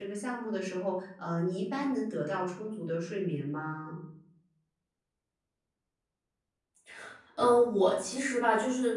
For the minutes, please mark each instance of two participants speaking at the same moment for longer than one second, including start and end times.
none

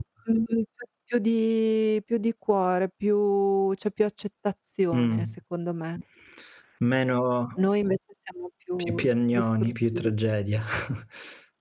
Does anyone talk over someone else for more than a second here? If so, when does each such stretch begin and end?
8.8-10.1

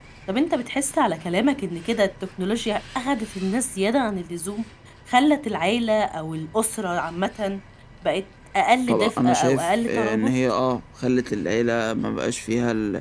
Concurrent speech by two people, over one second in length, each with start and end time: 8.9-10.4

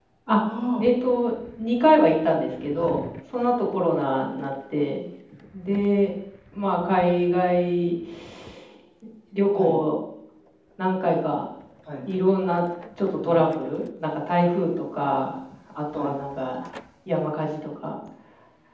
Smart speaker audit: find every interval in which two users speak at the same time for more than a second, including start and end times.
none

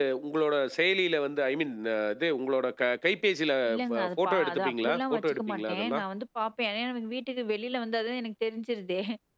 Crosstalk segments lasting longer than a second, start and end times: 3.9-6.0

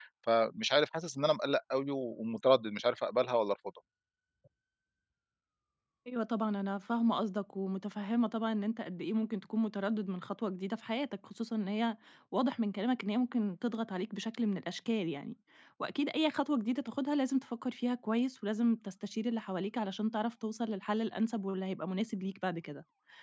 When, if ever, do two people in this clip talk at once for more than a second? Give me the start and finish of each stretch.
none

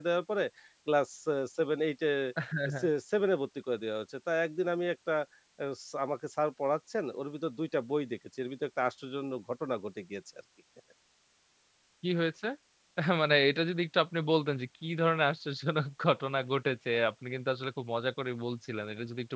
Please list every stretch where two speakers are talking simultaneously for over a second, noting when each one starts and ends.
none

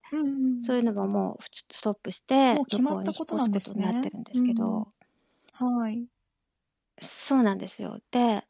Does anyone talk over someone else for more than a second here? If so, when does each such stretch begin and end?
2.5-4.8

